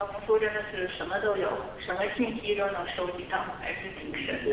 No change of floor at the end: No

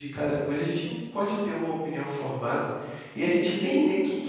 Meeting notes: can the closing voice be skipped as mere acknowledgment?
Yes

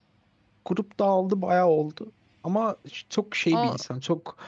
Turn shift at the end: No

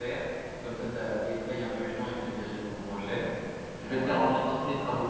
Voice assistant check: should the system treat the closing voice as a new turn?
No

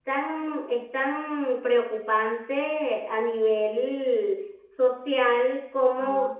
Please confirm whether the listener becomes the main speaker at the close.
No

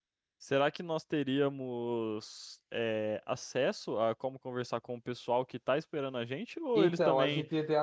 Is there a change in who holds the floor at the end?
Yes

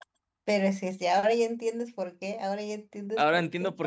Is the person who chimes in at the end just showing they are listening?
No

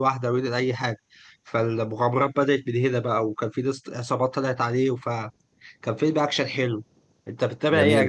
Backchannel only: No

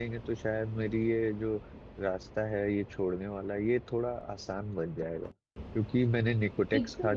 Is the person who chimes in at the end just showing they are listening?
Yes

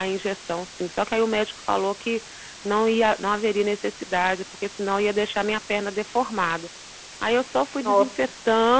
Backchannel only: Yes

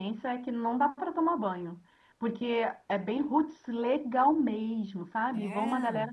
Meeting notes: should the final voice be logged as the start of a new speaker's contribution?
No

